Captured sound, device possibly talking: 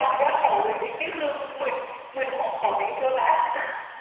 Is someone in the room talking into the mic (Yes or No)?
No